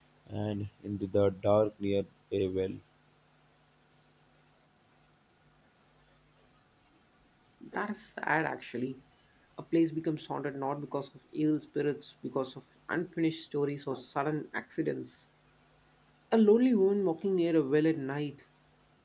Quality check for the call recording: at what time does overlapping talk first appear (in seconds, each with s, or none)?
none